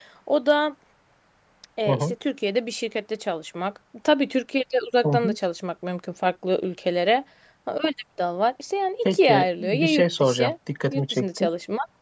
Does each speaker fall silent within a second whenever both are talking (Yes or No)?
No